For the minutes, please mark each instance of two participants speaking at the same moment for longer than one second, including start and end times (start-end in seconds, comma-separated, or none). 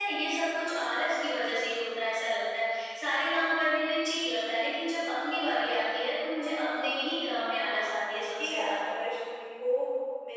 7.6-8.9